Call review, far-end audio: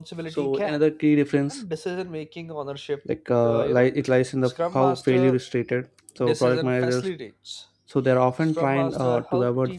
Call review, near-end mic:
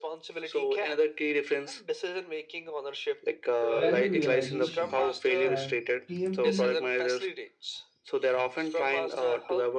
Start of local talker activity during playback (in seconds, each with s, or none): 3.8 s